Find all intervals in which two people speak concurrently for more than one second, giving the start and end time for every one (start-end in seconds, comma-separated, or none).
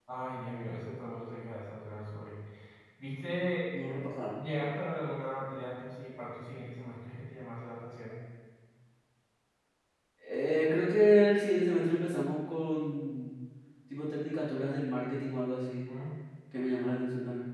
none